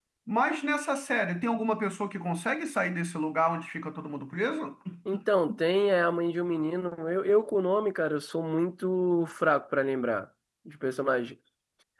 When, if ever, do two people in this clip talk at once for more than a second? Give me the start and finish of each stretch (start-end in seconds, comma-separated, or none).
none